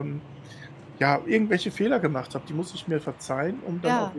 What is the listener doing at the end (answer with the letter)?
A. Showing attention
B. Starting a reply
A